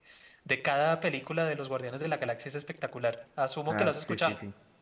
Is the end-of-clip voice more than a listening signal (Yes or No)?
Yes